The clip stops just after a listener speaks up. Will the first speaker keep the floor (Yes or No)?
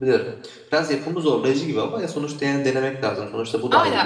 No